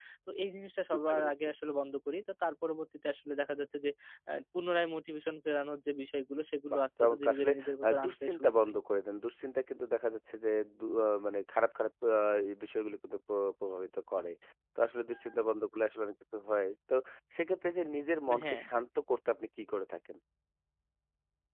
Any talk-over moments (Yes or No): Yes